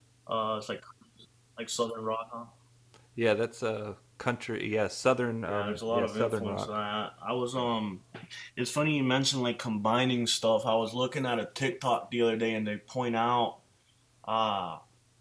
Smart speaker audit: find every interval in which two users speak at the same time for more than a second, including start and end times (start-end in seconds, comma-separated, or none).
5.5-6.8